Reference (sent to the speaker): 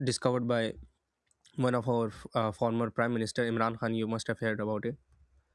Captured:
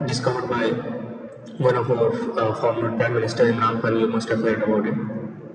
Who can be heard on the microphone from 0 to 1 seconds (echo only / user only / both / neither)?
echo only